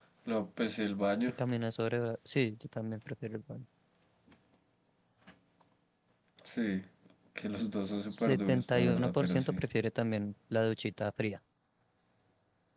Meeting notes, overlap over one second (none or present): present